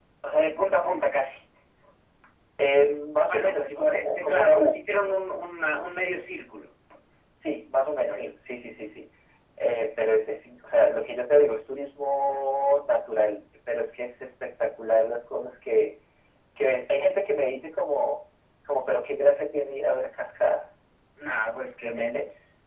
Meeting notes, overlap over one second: present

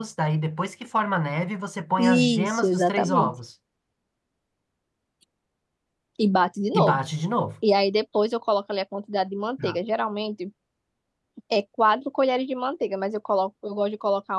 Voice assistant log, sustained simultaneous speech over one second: present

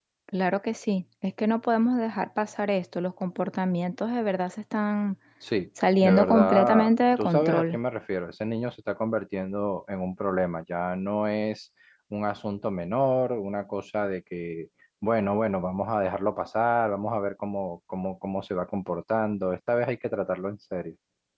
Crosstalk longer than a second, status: present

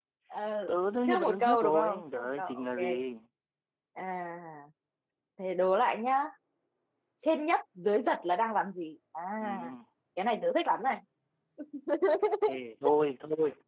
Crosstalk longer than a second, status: present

